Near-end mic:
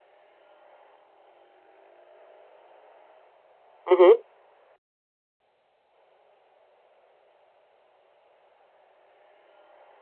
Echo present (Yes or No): No